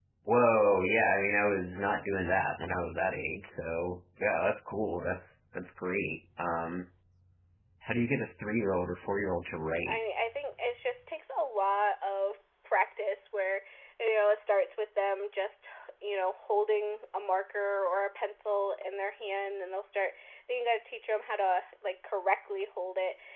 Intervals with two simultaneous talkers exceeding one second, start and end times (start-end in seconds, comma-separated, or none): none